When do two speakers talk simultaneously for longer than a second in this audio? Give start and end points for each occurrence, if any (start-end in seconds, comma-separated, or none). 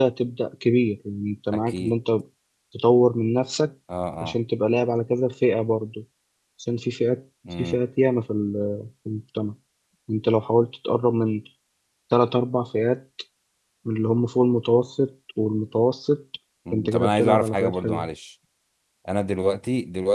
16.7-18.1